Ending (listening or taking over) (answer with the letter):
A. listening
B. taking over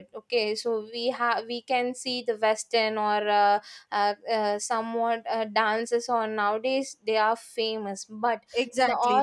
B